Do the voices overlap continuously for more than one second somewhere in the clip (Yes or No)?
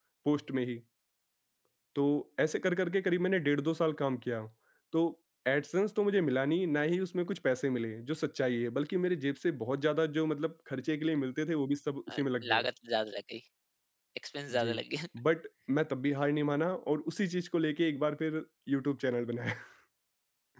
No